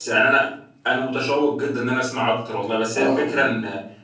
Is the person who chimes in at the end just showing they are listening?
Yes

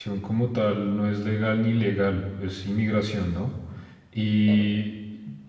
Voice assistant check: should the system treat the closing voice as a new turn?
No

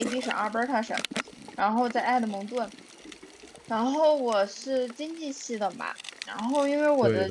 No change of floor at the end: Yes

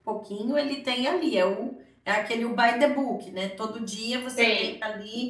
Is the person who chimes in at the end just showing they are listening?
Yes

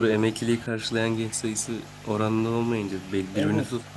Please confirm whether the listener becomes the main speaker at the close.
Yes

